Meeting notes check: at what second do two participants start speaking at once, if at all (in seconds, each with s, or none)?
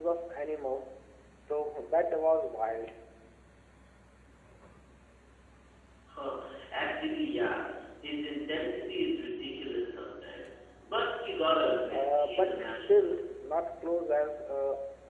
11.9 s